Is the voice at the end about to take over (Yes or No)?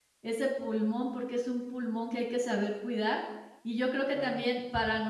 No